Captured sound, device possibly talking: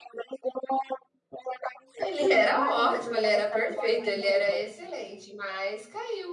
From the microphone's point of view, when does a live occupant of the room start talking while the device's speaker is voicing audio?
2.0 s

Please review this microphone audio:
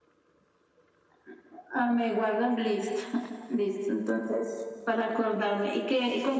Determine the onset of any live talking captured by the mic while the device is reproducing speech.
none

